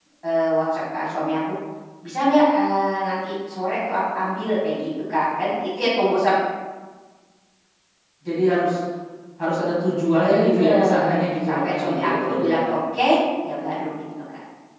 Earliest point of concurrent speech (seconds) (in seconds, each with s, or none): 10.2 s